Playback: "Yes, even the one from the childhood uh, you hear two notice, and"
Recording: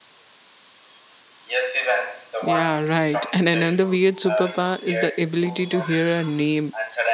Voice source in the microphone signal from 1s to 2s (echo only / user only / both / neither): echo only